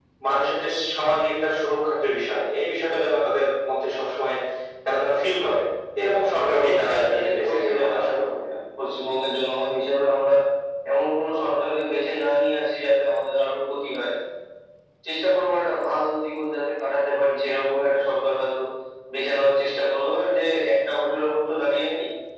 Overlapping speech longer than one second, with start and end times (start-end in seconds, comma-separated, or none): 6.5-8.3